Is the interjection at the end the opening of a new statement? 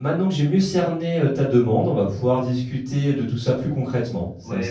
Yes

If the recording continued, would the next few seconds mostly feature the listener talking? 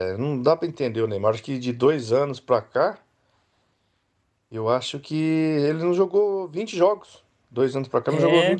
No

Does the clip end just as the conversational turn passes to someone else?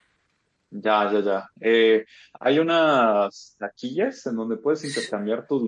No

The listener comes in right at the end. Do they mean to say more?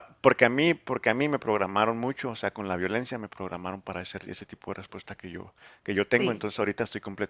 No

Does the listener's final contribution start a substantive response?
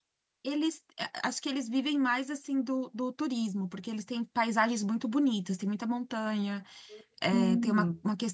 No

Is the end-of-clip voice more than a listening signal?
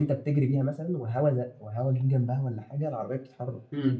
Yes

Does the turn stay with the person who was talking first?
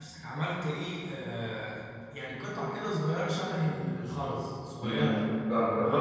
No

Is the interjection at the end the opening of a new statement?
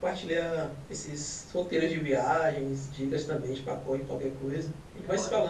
Yes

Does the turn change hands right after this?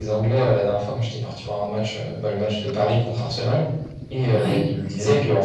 No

